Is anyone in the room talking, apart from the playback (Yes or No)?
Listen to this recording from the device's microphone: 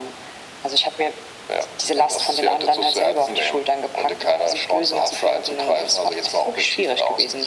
No